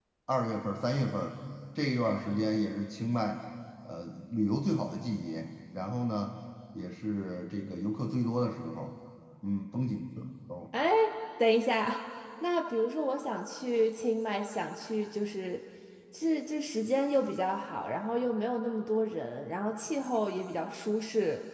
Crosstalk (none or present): none